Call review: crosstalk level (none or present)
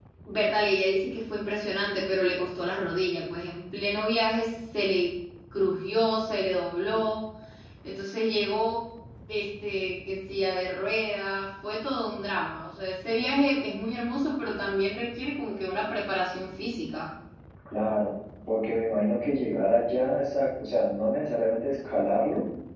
none